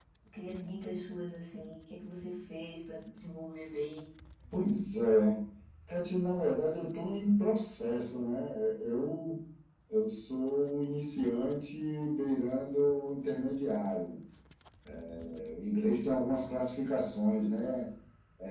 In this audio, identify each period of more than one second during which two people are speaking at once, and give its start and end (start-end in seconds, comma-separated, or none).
none